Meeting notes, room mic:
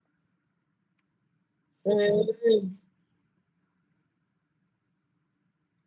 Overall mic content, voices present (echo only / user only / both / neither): user only